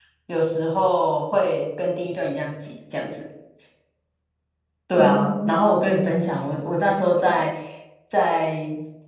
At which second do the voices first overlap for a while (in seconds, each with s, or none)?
5.0 s